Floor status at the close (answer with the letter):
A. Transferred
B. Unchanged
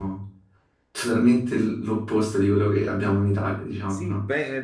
A